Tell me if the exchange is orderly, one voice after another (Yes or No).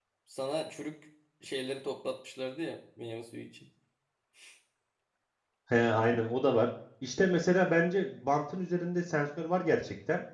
Yes